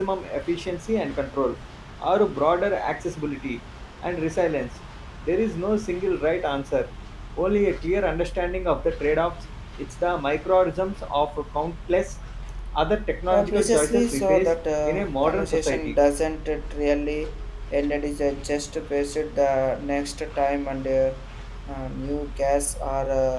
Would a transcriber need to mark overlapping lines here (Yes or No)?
Yes